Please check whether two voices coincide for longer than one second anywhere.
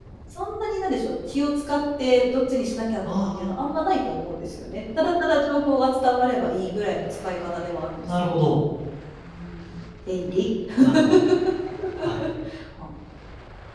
No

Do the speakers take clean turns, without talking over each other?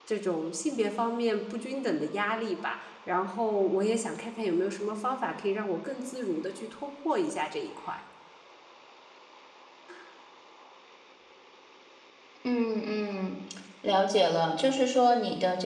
Yes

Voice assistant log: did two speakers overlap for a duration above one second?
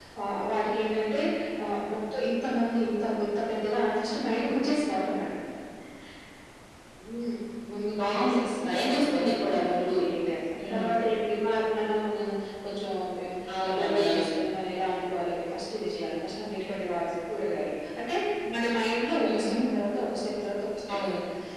Yes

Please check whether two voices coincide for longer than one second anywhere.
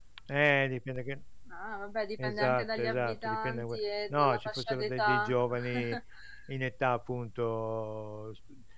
Yes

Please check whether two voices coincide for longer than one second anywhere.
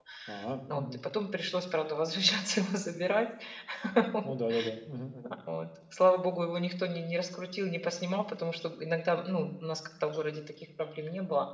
No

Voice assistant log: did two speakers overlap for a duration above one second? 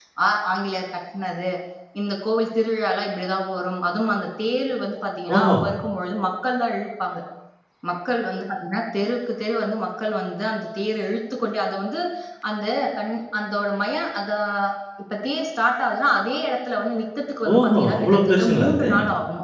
Yes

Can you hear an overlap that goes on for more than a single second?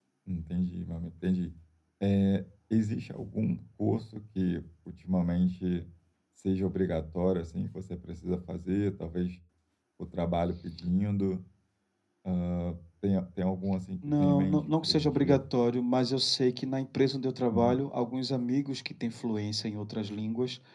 Yes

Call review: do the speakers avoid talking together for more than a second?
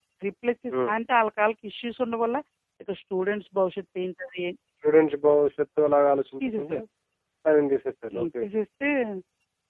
Yes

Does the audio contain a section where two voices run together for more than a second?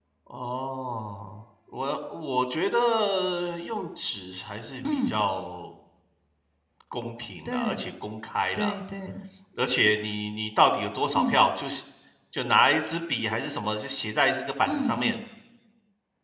No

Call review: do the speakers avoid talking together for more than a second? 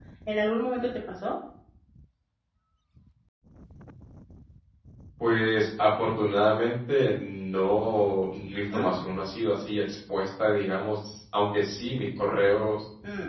Yes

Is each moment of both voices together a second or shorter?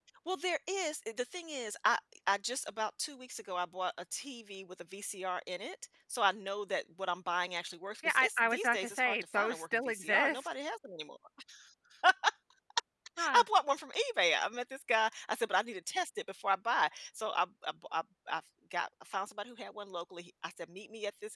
No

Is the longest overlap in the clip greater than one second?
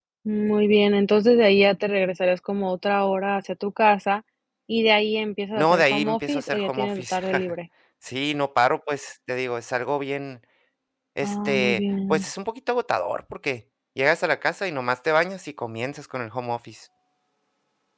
Yes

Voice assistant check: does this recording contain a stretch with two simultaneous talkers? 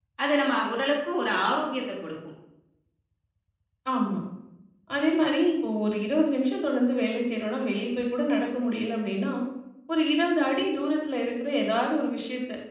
No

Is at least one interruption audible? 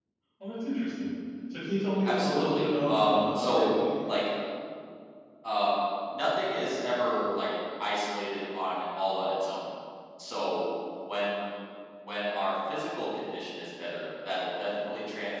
Yes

